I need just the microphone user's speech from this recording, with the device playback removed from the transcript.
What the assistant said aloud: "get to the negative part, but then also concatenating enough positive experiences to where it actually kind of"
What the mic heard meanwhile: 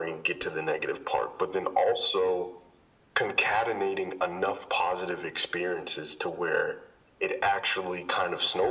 none

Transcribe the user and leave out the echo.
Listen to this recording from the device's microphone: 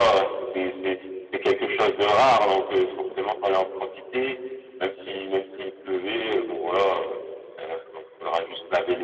none

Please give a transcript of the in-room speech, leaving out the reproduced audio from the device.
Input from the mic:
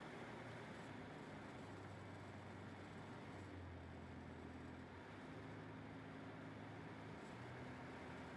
none

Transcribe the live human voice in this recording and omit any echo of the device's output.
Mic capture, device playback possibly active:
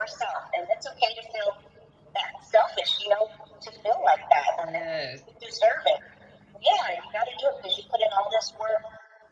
Yes.

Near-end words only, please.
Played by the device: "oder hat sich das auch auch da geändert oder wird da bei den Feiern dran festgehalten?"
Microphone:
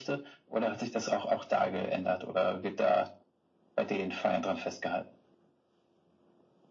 none

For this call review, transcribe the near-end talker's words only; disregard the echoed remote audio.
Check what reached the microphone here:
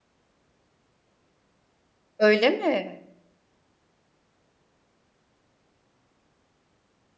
Öyle mi?

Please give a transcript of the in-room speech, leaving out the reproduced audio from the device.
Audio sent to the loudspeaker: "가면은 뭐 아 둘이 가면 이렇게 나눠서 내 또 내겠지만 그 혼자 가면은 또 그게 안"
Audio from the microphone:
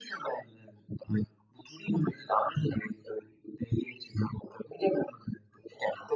none

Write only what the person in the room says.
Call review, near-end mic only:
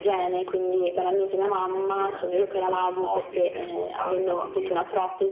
uhm, di pesantezza, quasi di morte che mi raccontavi, no, quindi,

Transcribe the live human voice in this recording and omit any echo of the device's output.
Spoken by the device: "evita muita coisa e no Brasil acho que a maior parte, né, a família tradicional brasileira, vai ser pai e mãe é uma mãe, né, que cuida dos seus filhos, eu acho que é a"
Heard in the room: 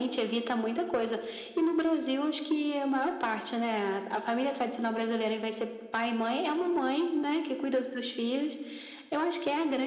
none

